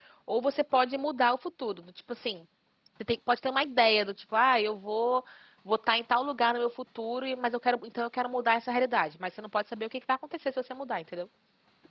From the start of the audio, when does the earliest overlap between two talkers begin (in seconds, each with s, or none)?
none